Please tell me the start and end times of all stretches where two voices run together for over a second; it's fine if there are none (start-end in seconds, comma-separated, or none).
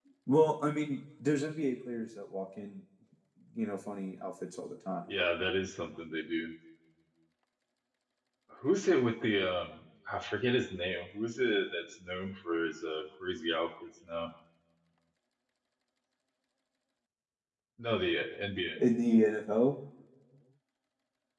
none